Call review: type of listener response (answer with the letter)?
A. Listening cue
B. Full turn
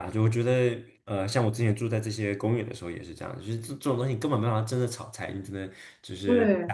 A